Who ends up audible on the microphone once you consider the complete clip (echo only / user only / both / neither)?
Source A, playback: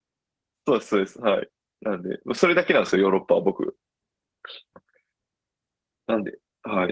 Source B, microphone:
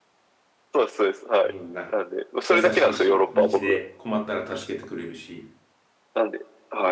both